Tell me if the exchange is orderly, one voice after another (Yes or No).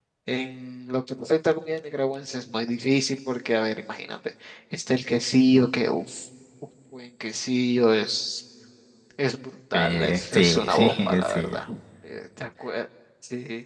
No